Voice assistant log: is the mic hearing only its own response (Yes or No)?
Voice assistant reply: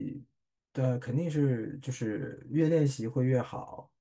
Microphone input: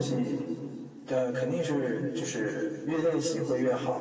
Yes